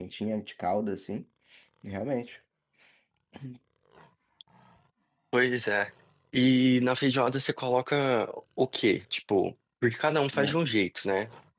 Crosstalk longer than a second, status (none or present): none